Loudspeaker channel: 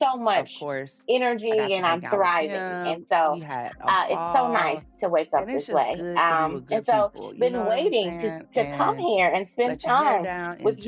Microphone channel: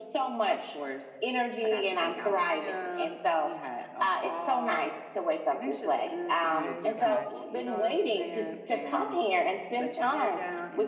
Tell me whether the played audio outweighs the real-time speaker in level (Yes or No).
Yes